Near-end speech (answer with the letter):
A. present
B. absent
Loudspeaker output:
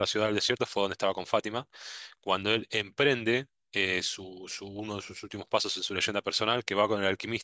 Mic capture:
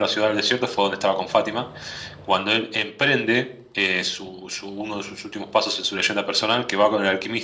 B